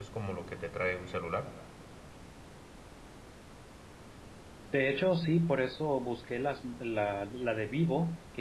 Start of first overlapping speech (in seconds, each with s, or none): none